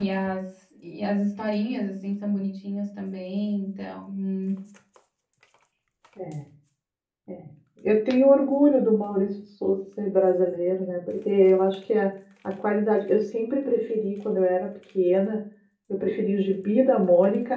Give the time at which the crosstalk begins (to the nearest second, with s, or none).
none